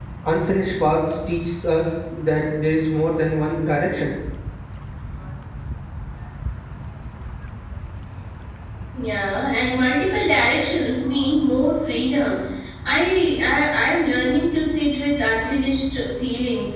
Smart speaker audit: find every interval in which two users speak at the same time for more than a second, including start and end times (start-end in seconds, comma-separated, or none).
none